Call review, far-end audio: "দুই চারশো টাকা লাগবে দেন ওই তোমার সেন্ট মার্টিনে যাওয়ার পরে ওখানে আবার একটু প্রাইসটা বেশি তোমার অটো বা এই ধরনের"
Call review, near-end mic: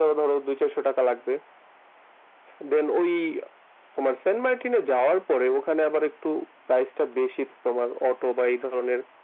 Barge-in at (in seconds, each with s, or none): none